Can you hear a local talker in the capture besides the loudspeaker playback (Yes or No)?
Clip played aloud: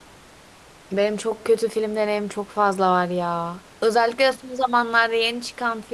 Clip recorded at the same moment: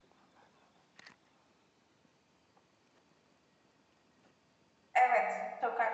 Yes